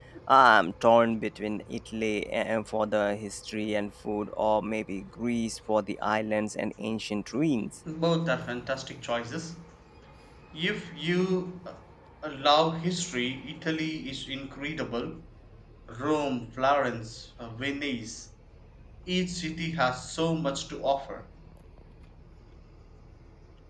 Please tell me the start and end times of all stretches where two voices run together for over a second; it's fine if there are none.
none

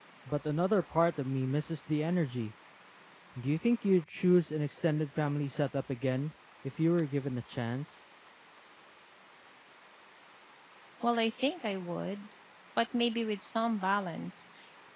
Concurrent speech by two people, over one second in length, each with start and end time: none

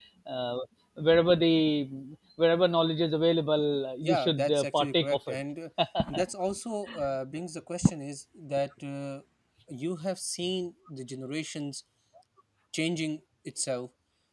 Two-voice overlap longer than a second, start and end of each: 4.0-5.4

